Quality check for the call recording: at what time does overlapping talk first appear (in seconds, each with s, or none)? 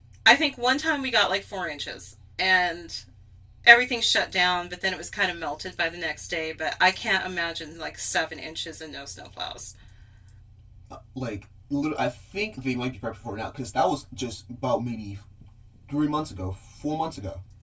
none